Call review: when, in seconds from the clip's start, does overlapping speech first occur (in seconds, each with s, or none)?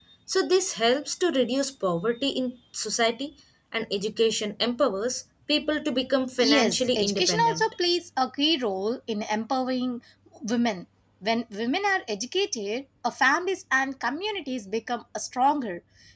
6.4 s